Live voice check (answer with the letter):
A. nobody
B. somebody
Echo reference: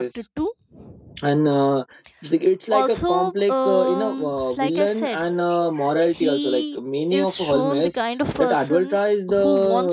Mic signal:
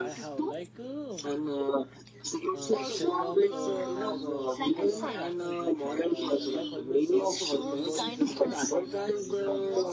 B